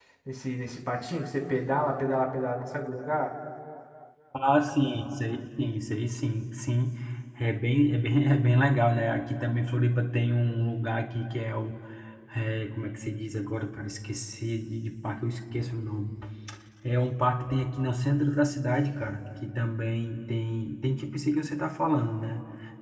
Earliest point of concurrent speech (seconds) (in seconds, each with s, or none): none